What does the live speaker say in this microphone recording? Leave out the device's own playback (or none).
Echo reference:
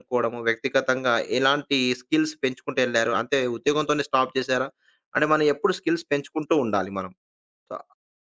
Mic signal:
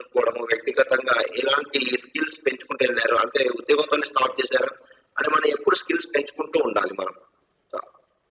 none